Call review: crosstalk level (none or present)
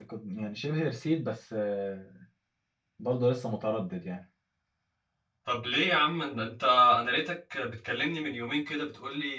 none